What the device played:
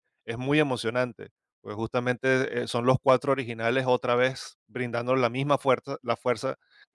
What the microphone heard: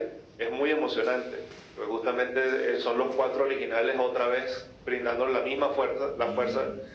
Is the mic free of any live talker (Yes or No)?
No